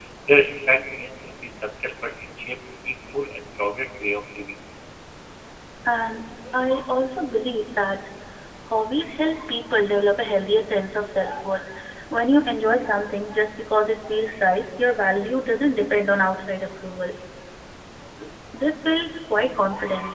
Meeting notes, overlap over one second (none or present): none